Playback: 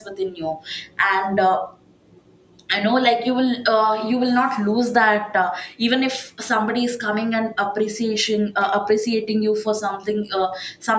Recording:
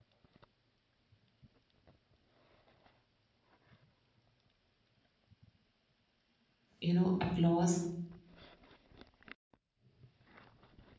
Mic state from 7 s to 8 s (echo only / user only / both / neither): user only